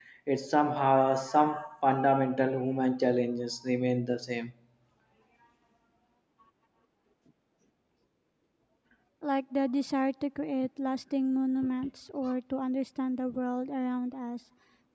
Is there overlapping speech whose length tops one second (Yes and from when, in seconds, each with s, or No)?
No